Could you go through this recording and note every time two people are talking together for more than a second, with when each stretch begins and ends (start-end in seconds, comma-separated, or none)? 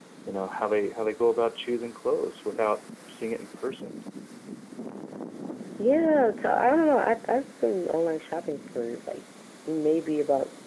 none